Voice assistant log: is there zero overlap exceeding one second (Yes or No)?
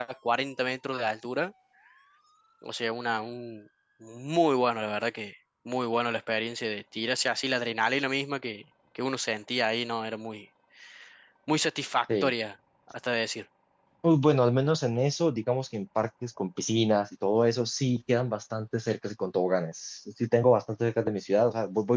Yes